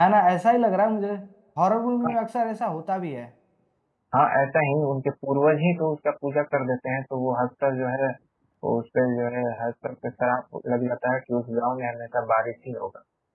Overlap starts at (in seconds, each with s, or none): none